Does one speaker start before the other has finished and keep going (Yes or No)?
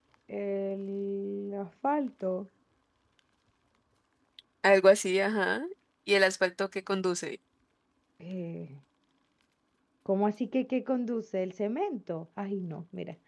No